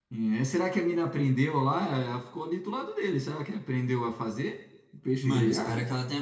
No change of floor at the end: No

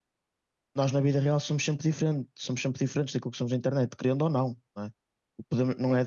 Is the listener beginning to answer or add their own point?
No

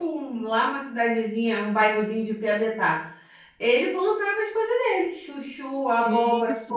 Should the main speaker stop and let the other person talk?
Yes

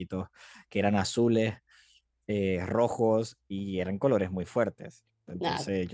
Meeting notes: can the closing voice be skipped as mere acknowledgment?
Yes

